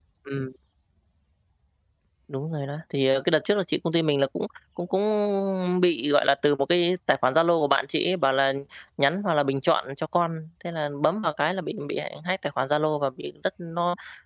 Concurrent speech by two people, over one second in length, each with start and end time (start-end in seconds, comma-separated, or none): none